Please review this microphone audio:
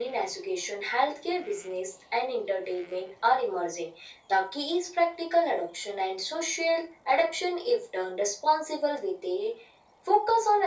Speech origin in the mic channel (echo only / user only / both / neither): echo only